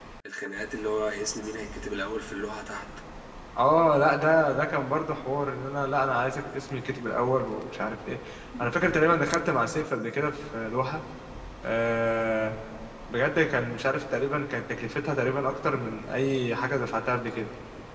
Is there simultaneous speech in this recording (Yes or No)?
No